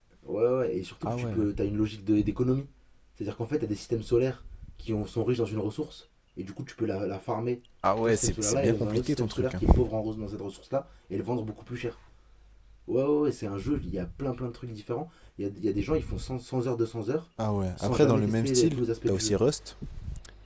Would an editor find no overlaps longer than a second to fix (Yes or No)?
No